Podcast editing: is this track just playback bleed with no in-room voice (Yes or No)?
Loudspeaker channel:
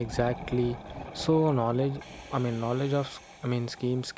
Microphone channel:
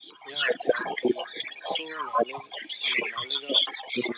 Yes